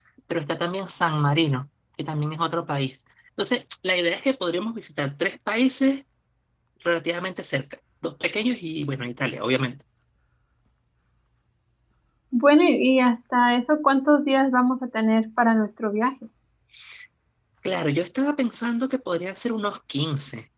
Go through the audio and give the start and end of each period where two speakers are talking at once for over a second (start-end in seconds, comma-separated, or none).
none